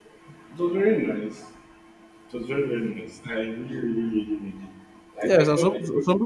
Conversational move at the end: taking over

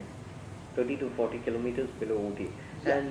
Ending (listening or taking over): listening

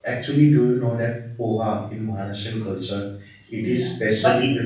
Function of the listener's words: taking over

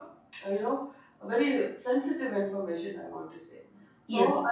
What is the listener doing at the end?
listening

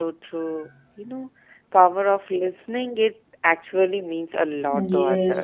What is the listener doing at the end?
taking over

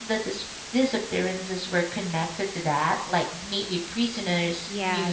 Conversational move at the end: taking over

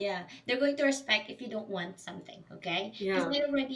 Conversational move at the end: listening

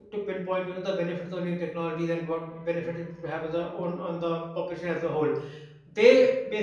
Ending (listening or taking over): listening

